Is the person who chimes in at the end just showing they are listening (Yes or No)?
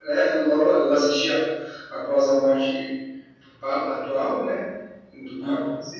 Yes